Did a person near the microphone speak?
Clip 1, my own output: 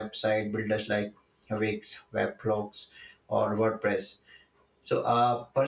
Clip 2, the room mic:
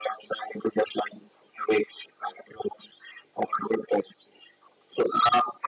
No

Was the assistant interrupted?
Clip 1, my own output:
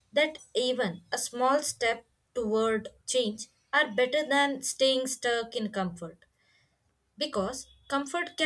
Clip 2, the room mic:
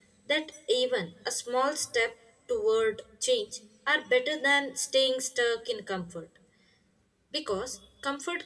No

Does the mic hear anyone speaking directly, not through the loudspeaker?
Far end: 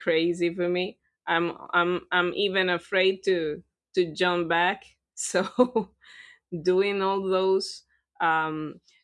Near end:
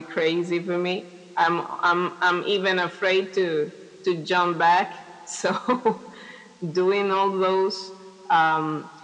No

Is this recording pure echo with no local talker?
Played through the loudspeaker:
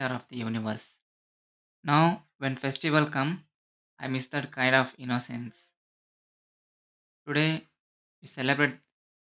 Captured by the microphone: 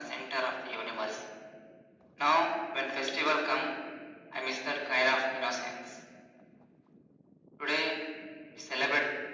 Yes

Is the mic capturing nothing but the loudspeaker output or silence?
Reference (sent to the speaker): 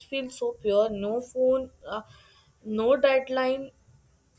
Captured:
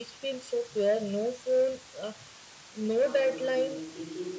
No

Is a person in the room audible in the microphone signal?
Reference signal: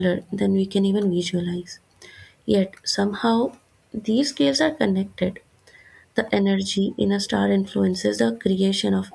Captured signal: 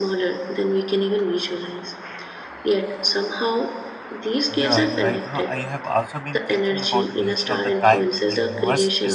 Yes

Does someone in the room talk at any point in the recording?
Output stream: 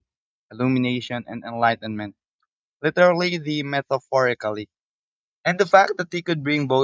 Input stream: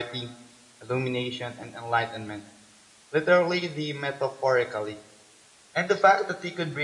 No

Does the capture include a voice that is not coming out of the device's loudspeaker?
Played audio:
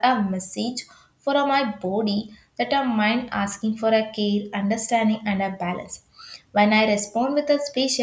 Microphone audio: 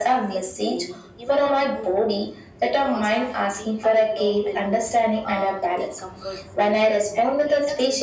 Yes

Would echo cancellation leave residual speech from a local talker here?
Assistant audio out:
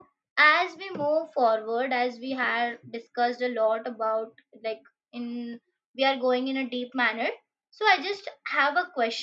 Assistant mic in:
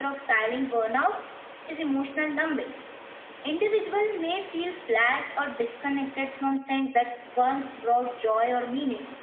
Yes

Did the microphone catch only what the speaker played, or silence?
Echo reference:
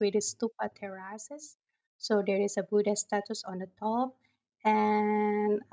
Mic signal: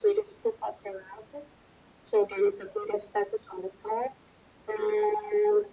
Yes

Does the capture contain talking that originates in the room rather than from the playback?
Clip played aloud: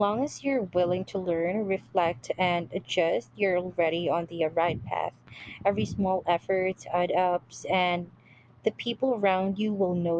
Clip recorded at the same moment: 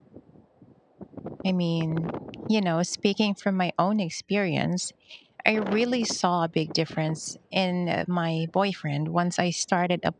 Yes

